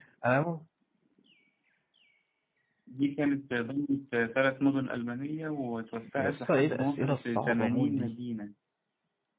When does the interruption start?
6.2 s

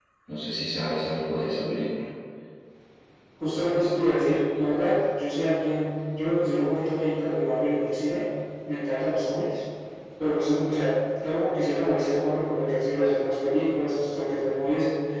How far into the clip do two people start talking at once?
none

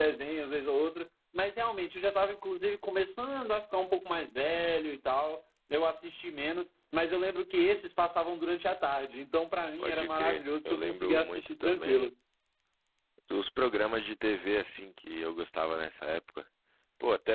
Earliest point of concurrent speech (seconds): 9.8 s

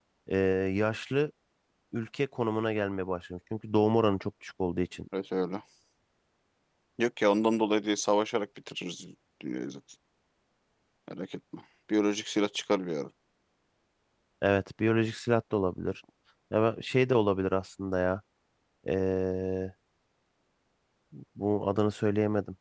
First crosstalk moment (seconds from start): none

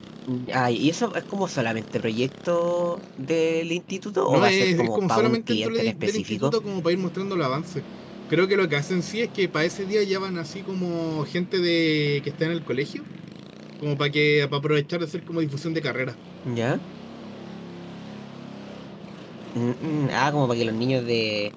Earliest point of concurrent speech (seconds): 4.3 s

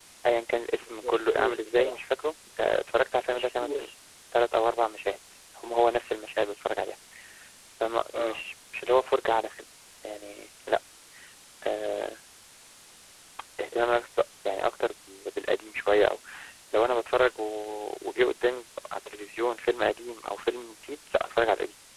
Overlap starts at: 0.8 s

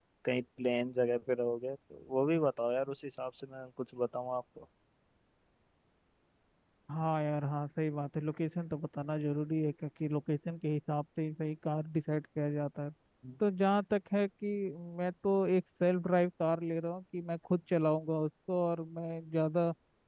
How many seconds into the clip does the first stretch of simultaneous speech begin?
none

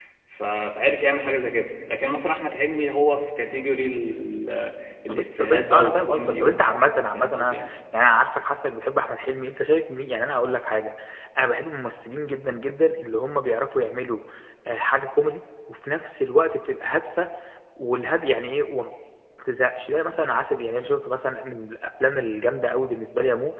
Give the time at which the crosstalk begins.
5.1 s

